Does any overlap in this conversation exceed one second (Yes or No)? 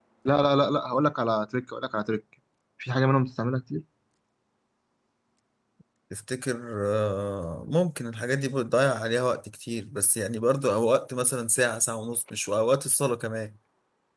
No